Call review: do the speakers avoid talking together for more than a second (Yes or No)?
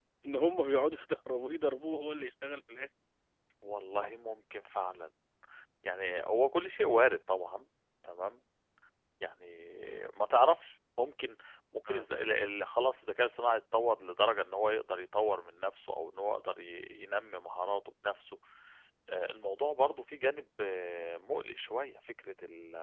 Yes